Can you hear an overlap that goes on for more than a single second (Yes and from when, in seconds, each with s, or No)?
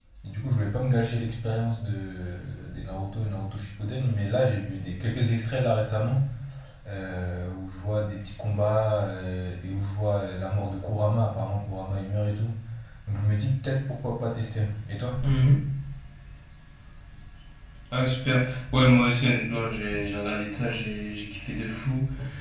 No